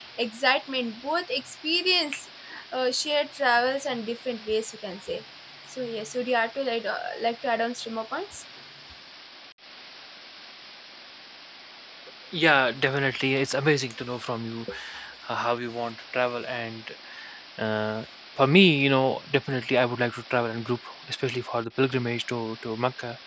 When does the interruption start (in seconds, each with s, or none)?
none